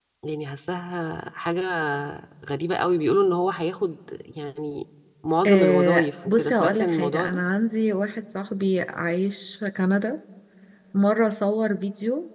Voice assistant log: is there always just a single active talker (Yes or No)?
No